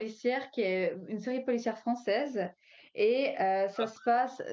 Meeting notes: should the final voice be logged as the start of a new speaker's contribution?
No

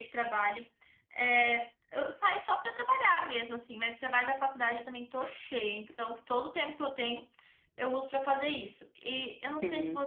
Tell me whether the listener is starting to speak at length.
No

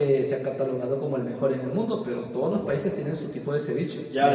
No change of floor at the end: No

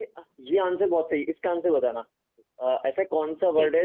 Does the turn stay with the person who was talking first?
Yes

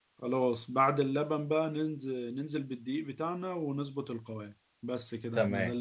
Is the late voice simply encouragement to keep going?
No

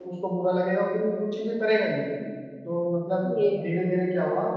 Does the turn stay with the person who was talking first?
Yes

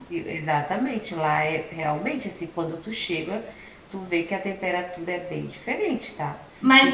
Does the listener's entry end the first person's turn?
Yes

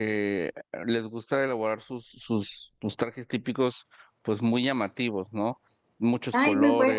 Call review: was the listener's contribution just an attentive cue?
No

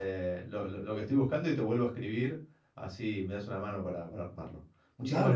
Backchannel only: No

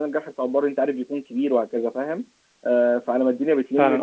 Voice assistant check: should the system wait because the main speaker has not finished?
No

